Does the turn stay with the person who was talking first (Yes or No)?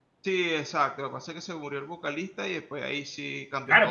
No